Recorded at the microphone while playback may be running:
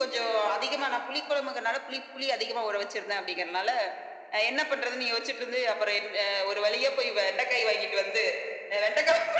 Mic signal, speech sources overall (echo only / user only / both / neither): echo only